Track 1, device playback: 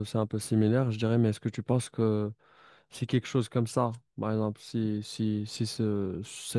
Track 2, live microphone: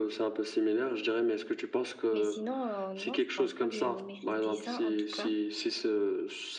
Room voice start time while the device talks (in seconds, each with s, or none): 2.1 s